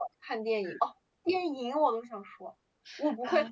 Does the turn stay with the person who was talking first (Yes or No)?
Yes